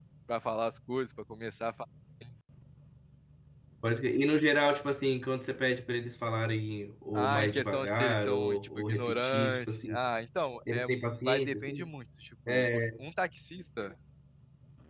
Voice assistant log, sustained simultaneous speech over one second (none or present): present